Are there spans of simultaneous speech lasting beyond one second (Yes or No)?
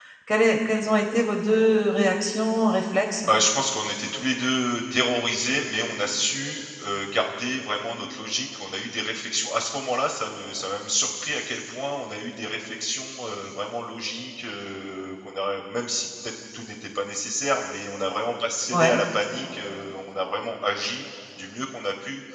No